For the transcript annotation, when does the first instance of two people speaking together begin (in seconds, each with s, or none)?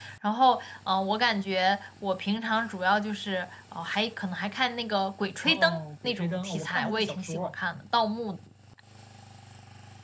5.4 s